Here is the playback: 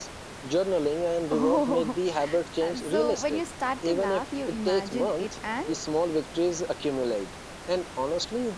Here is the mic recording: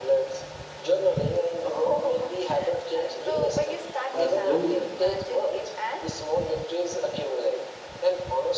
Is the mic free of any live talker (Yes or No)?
No